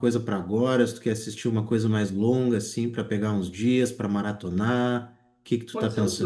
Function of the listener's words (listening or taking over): taking over